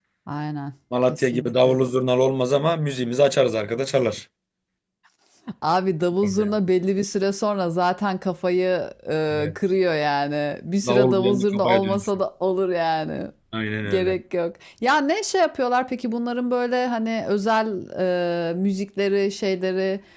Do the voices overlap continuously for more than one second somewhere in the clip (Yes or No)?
Yes